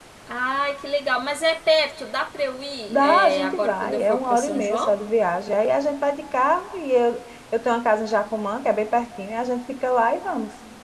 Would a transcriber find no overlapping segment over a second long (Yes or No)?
No